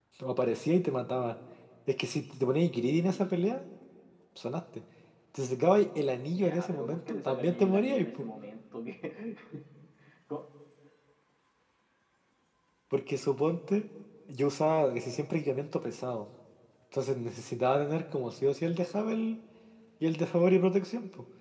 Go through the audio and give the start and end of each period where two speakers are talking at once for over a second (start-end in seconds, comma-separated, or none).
6.3-8.1